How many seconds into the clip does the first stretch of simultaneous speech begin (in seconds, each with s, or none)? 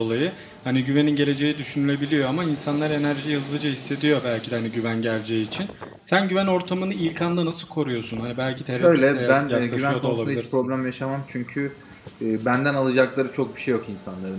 8.7 s